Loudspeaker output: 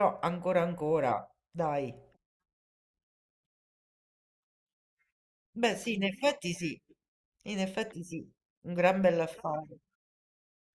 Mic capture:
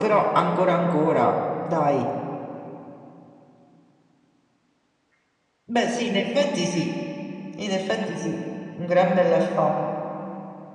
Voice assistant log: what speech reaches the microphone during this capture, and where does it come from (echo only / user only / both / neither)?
echo only